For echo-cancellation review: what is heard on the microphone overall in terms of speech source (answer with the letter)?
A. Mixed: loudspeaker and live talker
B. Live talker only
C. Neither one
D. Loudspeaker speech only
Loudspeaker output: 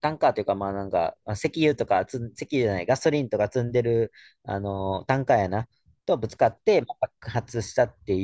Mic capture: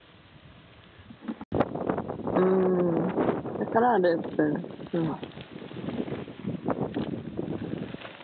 B